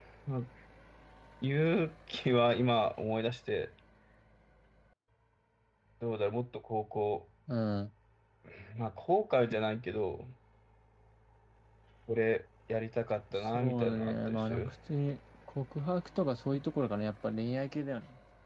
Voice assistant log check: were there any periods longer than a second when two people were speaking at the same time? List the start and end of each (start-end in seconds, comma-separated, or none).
13.3-14.7